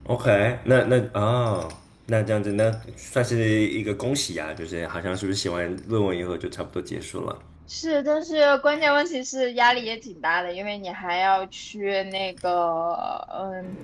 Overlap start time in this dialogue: none

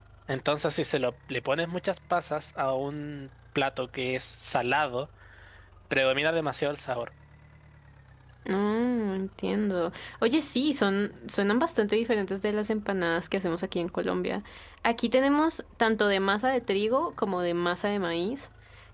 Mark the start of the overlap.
none

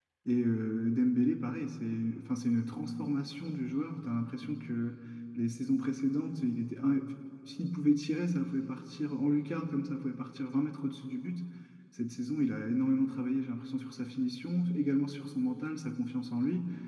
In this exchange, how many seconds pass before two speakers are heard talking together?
none

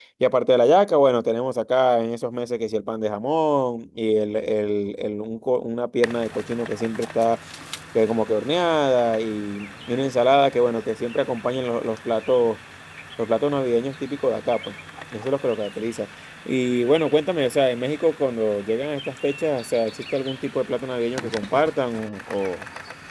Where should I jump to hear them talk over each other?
none

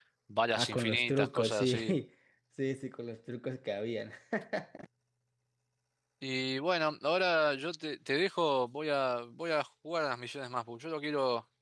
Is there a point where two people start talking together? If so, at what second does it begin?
0.5 s

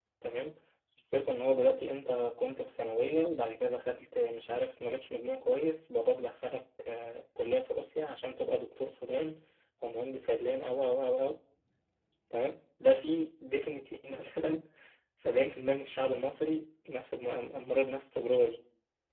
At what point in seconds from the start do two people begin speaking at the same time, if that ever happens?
none

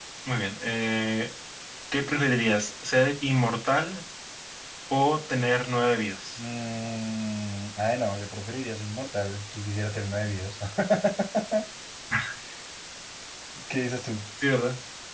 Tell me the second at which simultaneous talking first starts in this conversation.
none

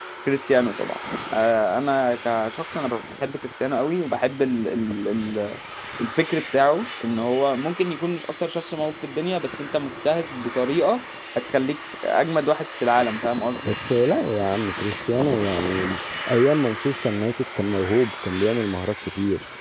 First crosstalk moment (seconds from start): none

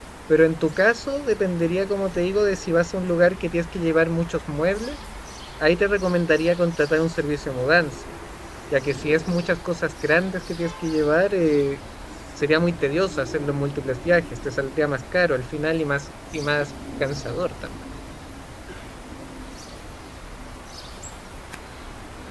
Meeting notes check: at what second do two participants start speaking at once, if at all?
none

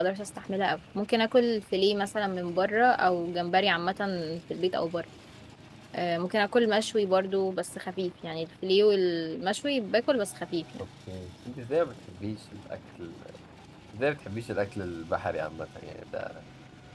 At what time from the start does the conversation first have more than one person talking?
none

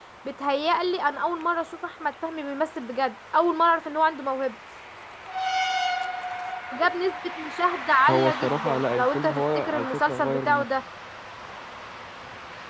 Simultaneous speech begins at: 8.1 s

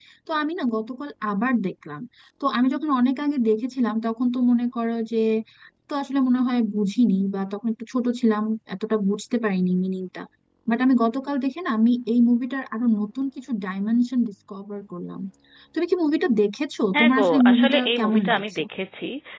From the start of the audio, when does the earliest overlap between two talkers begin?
16.9 s

